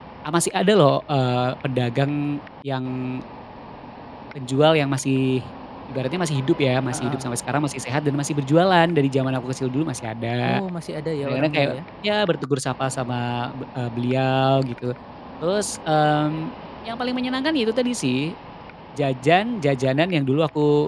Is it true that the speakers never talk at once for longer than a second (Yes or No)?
Yes